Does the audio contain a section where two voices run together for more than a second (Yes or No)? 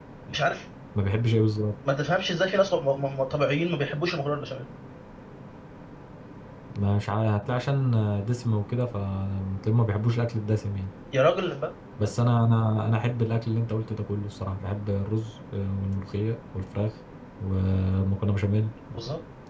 No